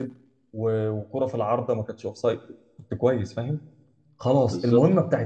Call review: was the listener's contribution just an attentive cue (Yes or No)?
Yes